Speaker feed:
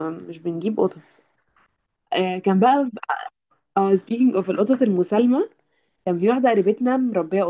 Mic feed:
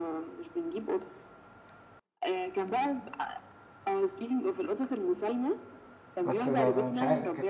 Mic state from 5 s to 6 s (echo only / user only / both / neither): echo only